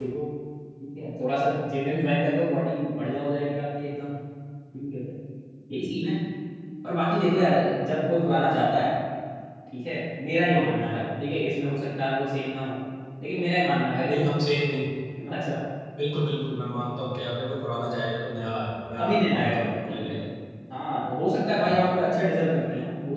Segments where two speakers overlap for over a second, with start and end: 19.0-20.2

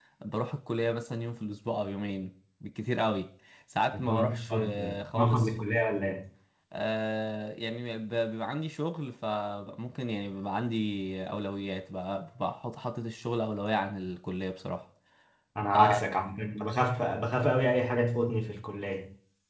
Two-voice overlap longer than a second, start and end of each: 3.9-5.5

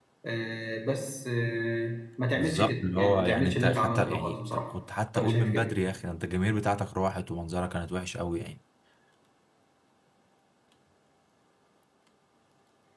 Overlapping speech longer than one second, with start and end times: 2.3-4.7

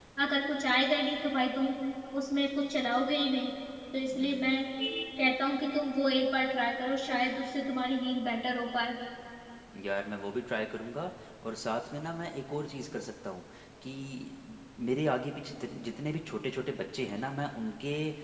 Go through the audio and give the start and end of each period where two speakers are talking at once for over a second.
none

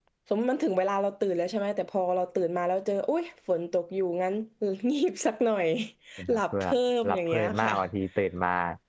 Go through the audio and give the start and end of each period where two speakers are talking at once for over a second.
6.3-7.7

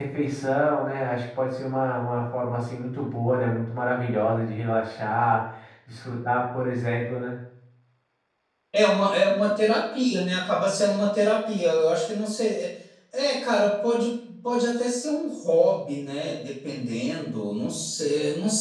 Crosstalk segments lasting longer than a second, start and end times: none

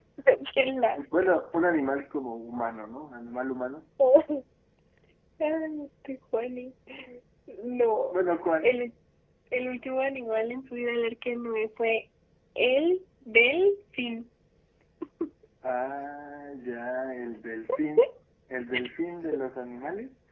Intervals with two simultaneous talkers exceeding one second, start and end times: none

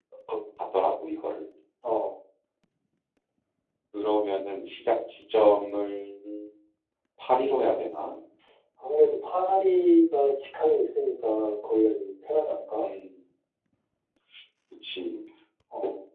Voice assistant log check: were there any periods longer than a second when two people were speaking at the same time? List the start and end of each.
none

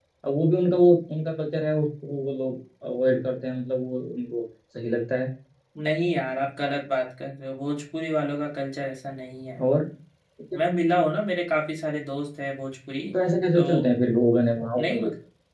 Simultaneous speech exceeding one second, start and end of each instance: none

